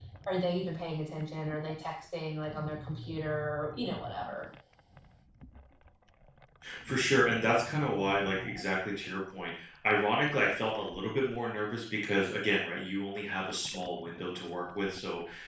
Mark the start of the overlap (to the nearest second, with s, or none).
none